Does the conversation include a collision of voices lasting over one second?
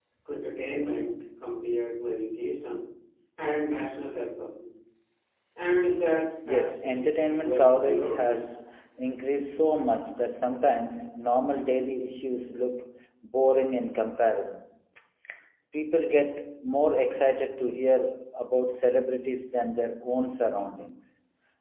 Yes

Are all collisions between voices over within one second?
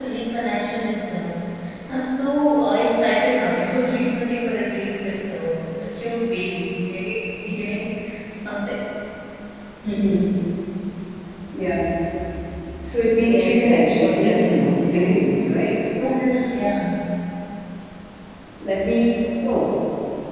No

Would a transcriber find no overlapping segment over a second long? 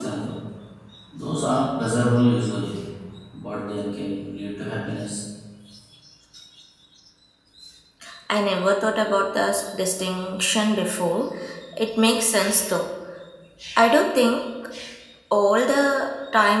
Yes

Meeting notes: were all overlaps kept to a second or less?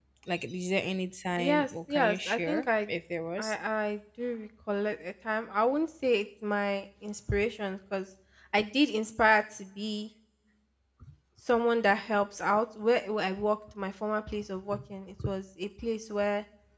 No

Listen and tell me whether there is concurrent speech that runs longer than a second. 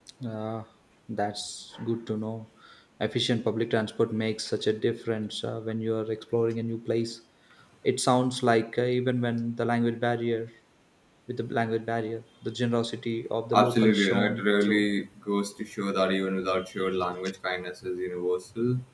Yes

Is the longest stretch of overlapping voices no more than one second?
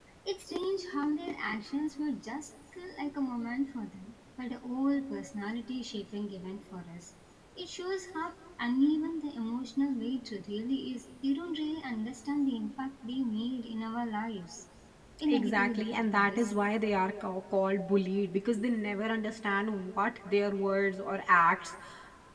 No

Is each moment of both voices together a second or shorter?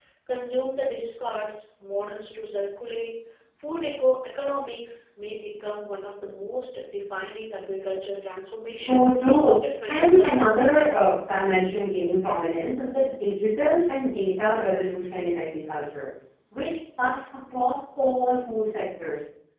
No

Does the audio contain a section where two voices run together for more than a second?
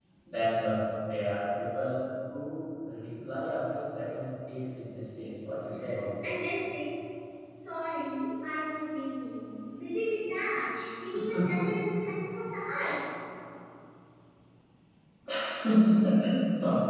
No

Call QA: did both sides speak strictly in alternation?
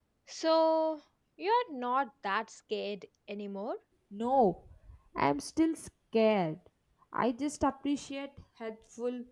Yes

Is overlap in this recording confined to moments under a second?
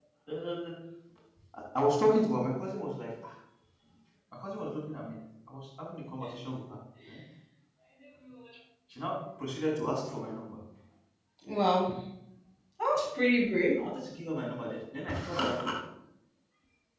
Yes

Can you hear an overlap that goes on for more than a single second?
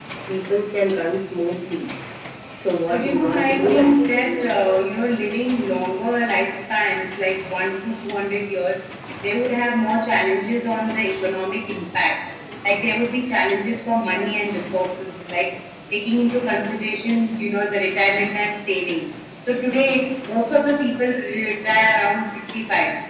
Yes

